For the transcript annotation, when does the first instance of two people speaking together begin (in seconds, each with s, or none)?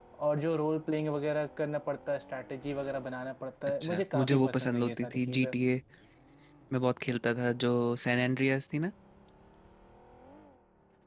3.8 s